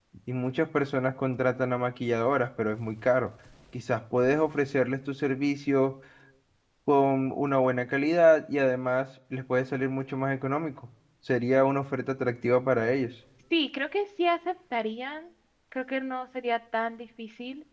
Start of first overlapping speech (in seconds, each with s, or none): none